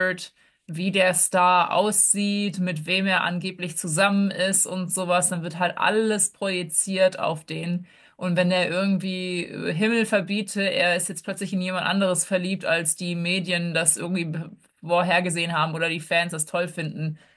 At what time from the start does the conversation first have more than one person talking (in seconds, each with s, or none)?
none